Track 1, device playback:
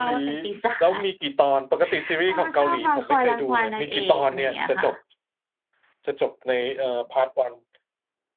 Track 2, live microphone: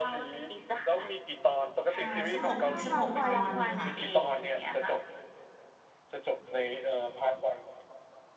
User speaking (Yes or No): Yes